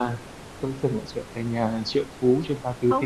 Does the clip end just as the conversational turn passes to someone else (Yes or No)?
Yes